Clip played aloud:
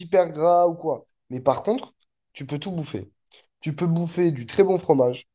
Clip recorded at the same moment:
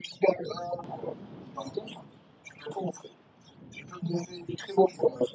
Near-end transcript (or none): none